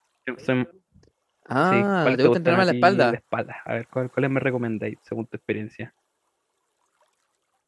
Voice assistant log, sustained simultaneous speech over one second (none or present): present